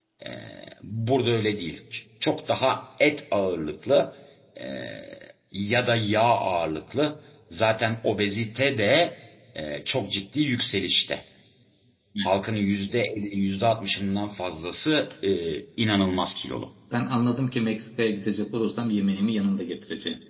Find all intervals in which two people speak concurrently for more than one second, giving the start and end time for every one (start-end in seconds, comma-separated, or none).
none